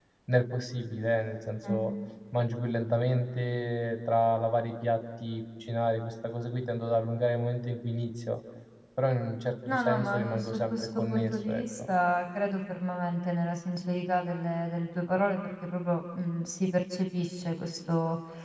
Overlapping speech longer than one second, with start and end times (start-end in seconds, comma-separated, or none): 9.7-11.8